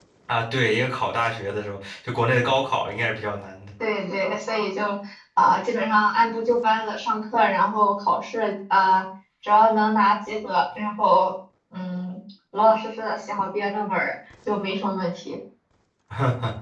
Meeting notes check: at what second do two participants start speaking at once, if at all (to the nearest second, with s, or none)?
none